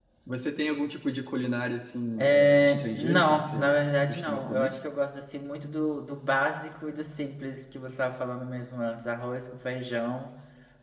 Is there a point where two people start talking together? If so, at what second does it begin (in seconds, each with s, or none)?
2.2 s